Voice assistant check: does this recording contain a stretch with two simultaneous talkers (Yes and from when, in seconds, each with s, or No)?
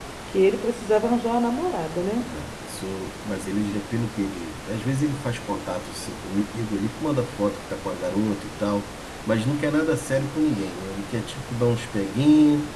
No